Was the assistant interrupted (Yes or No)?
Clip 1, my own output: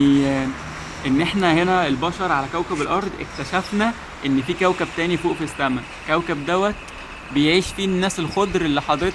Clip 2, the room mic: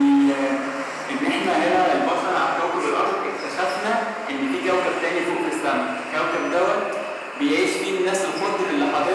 No